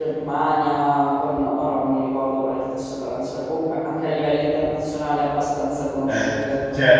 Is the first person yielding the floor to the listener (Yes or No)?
Yes